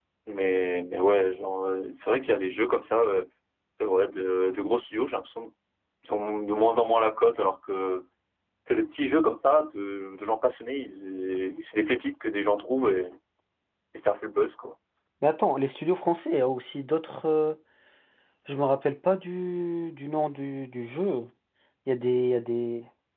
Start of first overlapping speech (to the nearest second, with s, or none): none